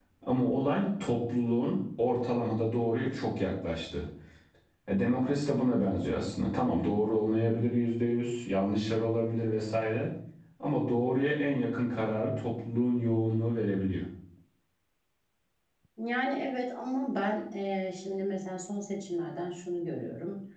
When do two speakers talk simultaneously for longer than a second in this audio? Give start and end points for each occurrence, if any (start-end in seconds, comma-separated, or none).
none